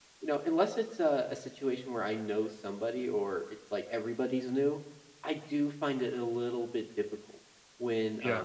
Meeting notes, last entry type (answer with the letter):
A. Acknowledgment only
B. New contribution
A